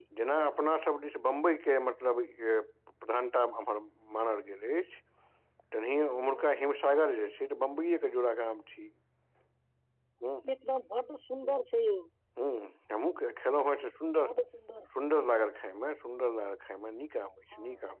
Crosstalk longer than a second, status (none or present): none